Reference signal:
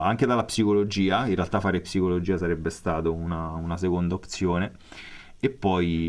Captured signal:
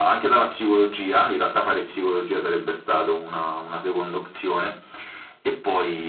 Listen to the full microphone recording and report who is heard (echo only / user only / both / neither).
echo only